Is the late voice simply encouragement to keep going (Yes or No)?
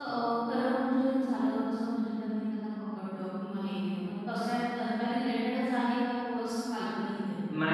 No